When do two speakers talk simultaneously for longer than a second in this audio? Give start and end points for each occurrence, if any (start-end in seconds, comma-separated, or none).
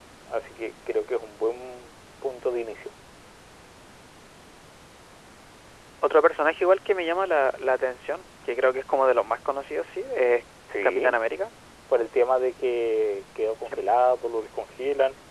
none